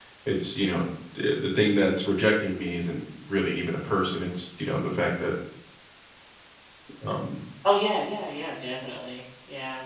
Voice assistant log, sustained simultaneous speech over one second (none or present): none